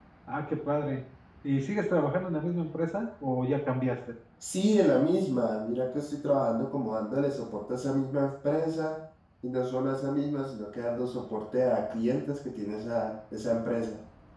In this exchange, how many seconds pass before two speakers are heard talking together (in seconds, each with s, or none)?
none